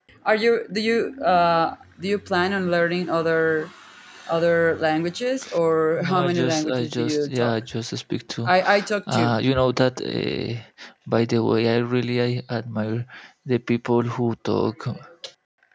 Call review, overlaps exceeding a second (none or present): present